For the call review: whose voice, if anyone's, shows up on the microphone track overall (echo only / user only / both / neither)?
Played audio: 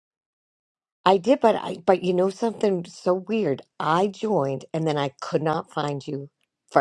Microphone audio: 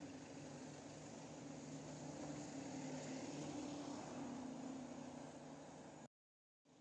neither